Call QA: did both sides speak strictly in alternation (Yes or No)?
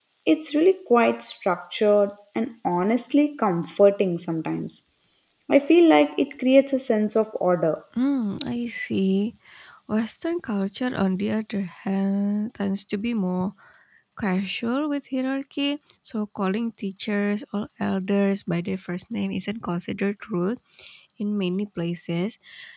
Yes